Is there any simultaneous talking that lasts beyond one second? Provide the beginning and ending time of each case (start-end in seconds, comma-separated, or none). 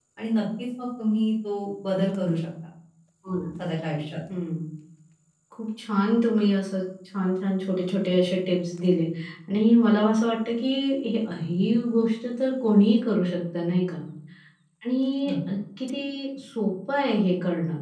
none